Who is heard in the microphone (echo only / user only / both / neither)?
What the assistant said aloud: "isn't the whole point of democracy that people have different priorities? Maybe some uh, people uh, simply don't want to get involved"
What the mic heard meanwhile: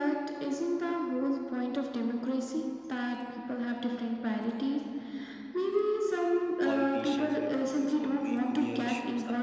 both